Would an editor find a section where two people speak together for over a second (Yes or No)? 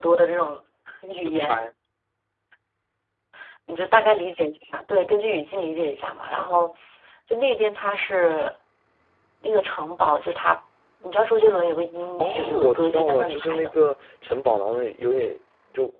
Yes